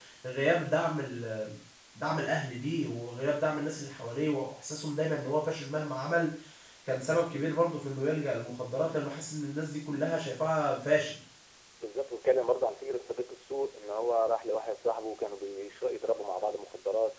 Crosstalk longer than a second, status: none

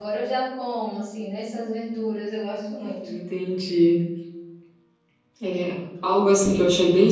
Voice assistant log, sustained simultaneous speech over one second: none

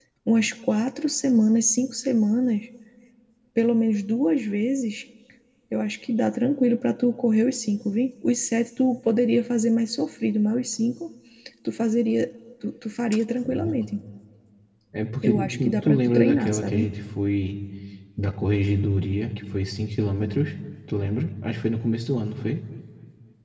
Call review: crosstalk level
present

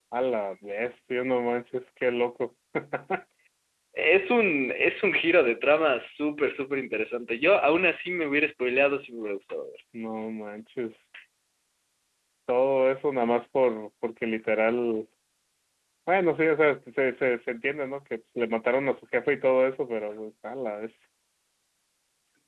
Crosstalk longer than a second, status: none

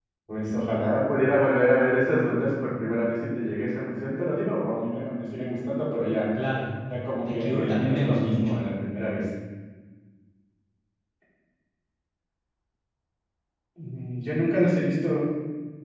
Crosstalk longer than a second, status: present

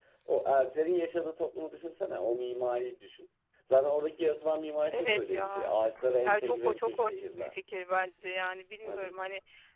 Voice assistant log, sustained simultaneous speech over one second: present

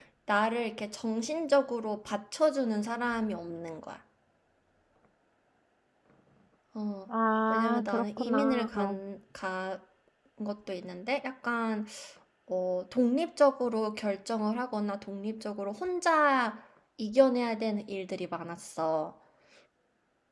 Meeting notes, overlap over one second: present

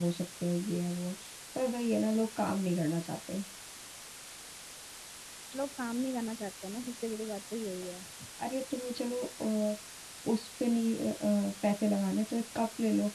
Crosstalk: none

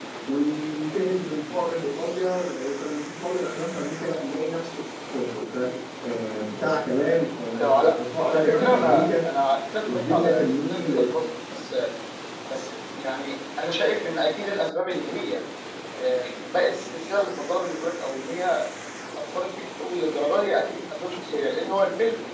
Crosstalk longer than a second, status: present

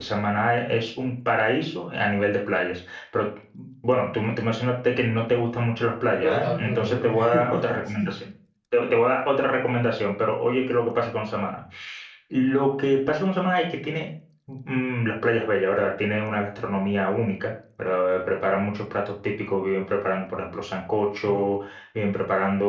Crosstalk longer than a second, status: present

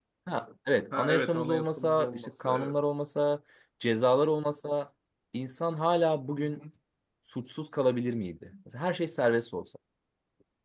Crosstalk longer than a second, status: present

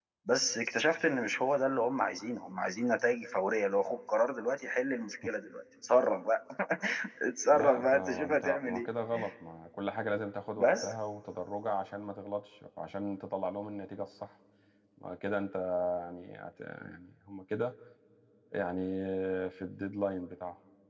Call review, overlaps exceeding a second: present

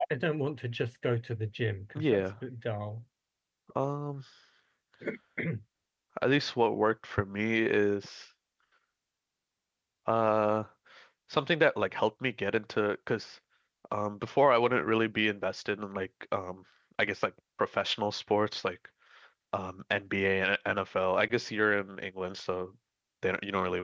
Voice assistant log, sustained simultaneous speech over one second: none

